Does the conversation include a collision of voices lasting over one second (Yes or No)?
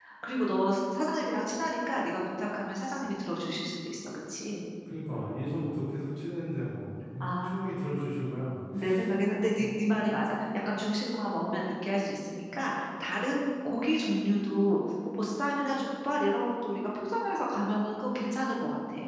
No